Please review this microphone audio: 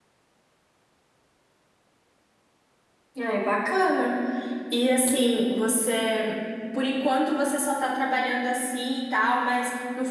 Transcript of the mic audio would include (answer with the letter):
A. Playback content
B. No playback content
B